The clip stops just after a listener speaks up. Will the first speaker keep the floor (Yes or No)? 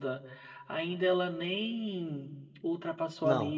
Yes